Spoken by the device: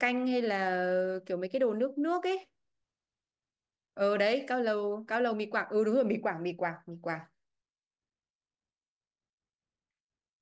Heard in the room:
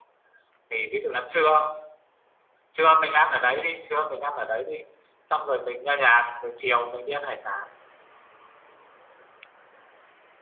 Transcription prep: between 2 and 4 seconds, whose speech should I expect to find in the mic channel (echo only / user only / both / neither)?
user only